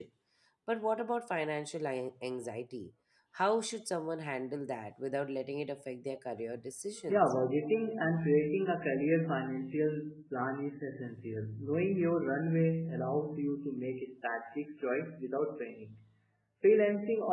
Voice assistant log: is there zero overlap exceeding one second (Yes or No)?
Yes